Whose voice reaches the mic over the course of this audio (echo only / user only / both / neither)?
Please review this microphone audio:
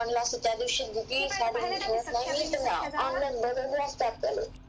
both